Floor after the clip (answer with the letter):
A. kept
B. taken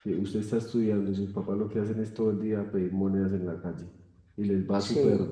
A